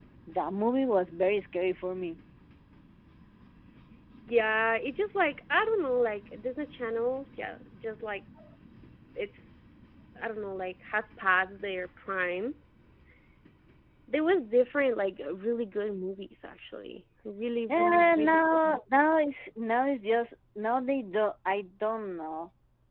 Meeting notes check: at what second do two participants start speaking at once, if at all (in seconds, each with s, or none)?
17.7 s